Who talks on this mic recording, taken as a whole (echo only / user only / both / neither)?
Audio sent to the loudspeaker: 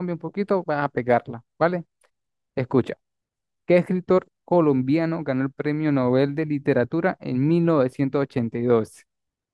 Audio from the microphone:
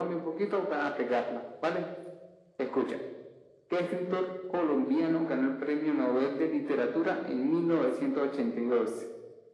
echo only